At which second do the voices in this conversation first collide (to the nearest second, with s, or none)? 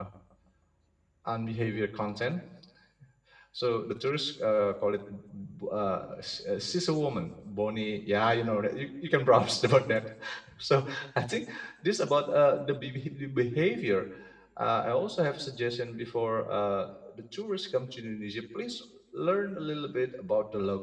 none